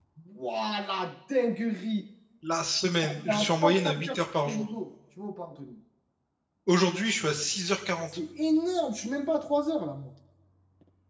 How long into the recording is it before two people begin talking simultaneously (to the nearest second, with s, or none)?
3 s